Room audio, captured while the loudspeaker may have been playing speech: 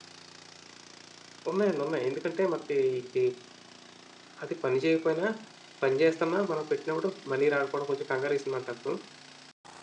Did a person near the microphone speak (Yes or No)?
Yes